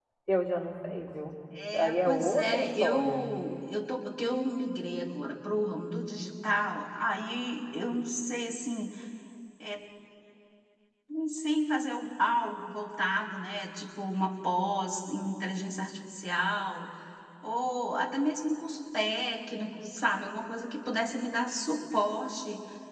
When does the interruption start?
1.7 s

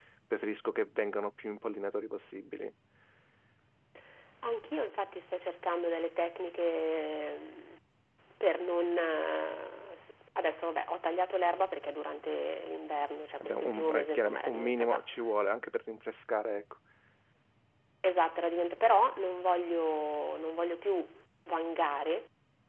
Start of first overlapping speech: 13.4 s

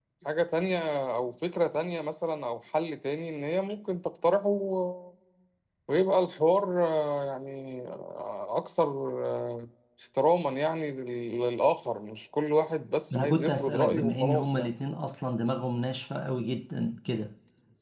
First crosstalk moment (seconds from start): 13.1 s

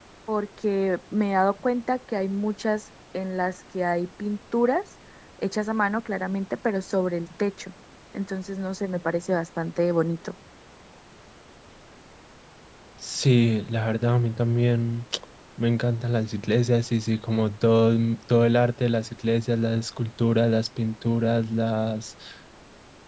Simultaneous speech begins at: none

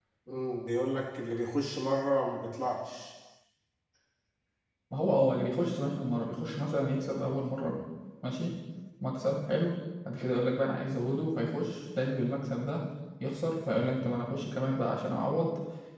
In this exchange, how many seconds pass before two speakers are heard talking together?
none

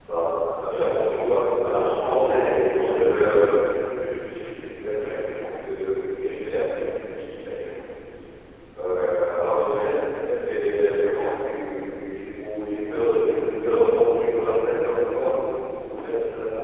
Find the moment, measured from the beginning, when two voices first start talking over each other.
1.7 s

